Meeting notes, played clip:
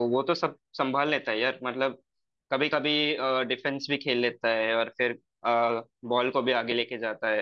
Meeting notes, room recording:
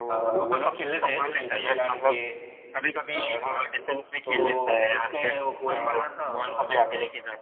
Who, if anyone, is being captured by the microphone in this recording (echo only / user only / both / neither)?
both